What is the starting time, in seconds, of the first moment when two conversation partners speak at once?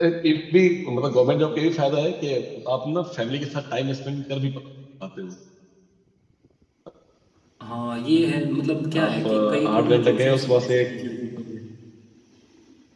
8.9 s

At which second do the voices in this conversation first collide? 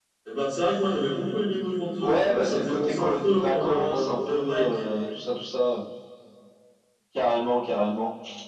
2.0 s

